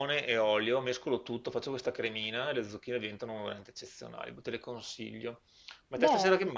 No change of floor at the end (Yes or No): Yes